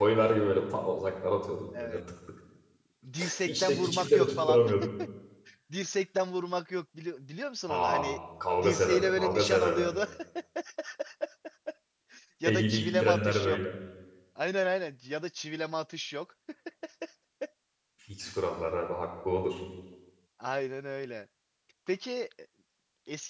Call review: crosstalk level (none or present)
present